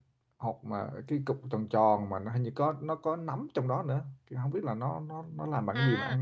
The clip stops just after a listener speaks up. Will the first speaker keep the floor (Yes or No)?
No